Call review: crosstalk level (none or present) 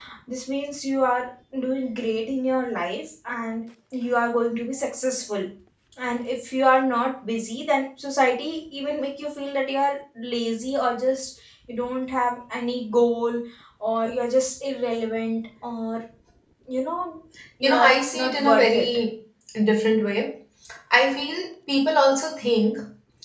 present